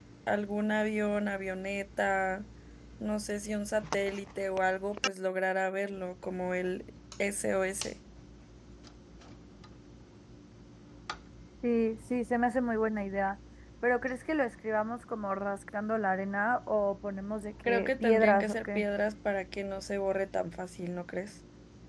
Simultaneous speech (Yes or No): Yes